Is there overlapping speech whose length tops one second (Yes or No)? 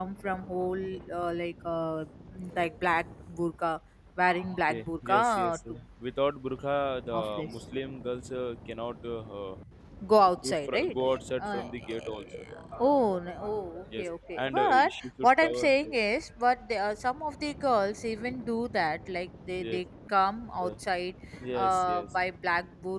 Yes